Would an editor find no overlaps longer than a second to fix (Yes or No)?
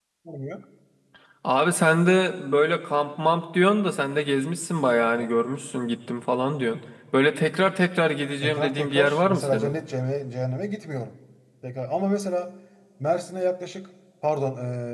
No